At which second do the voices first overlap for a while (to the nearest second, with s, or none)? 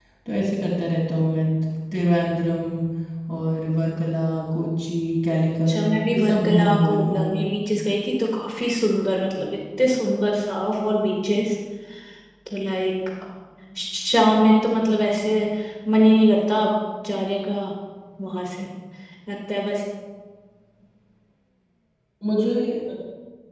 6 s